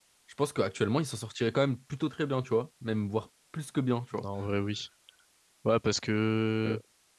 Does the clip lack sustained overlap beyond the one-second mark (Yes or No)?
Yes